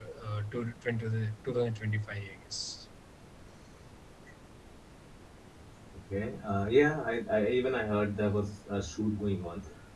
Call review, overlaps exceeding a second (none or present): none